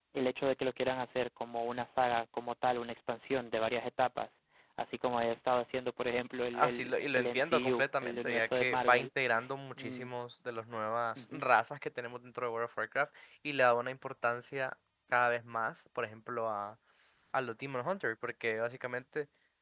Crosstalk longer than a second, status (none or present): present